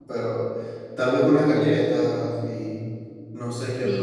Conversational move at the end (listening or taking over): taking over